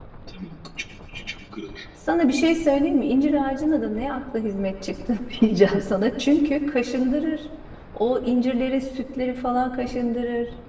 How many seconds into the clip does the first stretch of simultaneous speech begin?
none

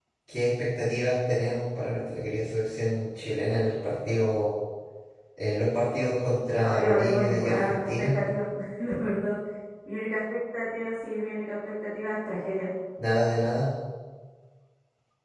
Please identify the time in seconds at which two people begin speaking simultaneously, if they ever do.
6.6 s

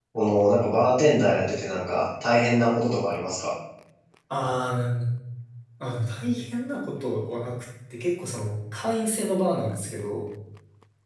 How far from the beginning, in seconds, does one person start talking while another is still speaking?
none

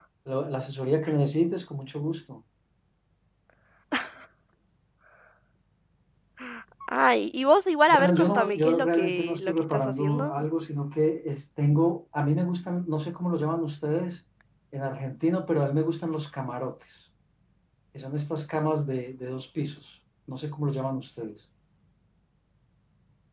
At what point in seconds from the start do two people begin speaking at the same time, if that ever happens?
7.9 s

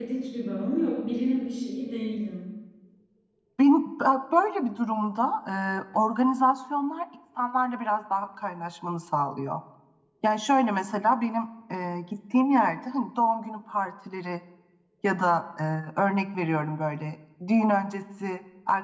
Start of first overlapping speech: none

